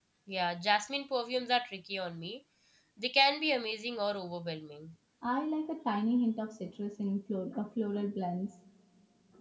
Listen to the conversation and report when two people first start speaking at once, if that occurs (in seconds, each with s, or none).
none